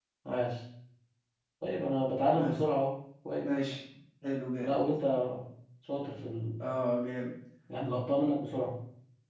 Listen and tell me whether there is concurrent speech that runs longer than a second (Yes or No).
No